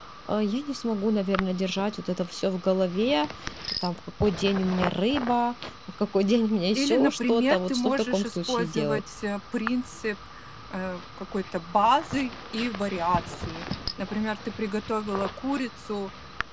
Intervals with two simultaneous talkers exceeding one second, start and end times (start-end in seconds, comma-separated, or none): 6.8-9.0